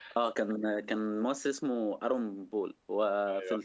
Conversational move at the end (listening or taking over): listening